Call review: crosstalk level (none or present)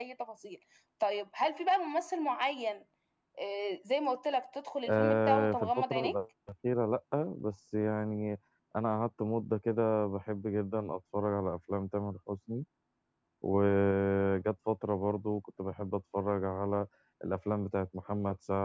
present